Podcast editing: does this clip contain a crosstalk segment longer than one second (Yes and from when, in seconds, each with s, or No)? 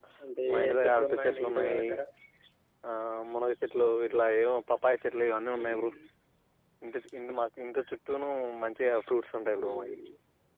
Yes, from 0.5 s